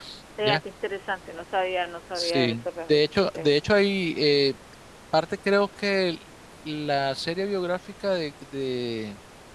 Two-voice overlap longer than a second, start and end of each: 2.2-3.6

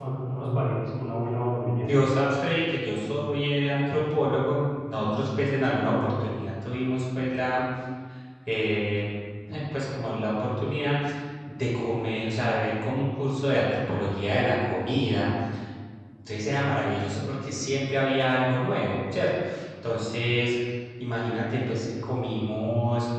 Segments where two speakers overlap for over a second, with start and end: none

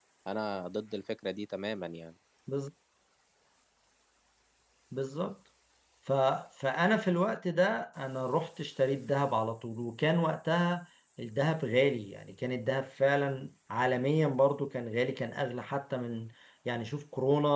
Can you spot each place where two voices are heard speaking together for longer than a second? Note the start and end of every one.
none

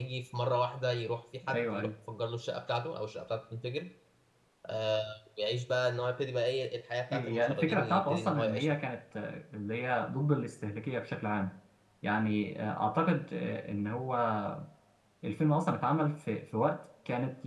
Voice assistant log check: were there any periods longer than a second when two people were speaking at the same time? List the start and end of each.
7.1-8.7

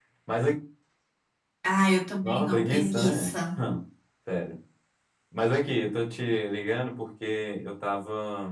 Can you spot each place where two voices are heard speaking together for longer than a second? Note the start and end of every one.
2.2-3.6

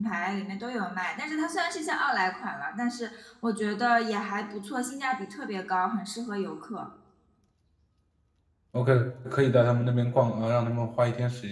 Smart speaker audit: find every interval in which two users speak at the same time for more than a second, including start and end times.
none

